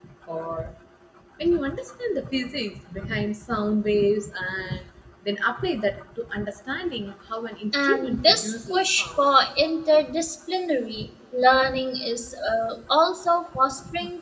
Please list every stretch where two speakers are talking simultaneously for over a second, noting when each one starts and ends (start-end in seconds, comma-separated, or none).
7.8-9.3